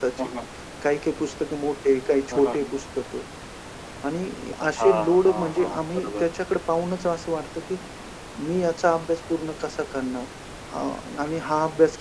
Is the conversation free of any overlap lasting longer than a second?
No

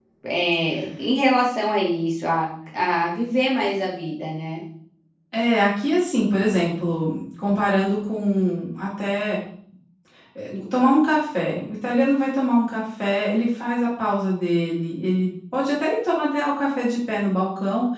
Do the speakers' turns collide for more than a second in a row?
No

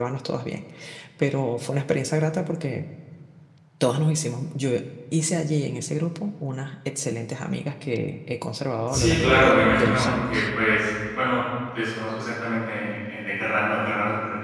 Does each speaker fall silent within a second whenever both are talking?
No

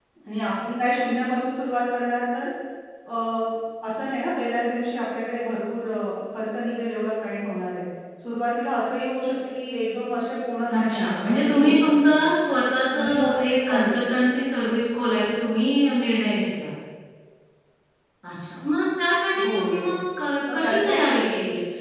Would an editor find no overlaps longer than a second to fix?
No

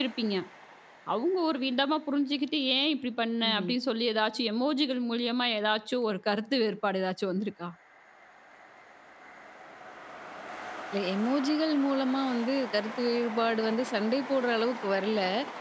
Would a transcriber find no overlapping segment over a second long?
Yes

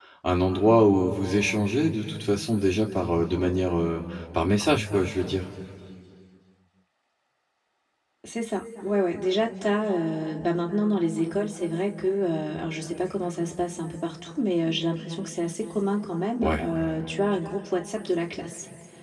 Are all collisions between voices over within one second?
Yes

